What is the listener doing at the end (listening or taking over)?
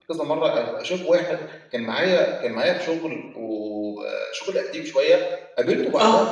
listening